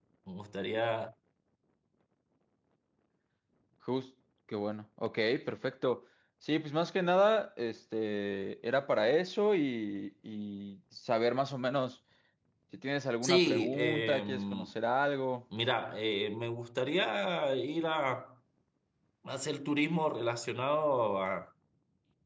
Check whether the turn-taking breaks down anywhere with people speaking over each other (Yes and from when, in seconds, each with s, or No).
Yes, from 13.2 s